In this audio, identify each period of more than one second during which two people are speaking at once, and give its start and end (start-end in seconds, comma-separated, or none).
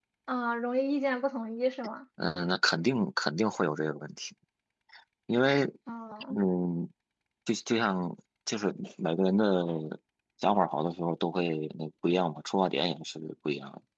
none